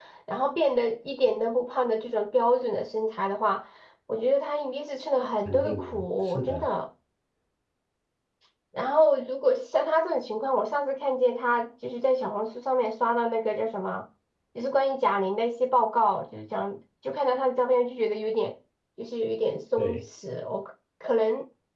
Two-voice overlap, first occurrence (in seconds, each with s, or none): 5.5 s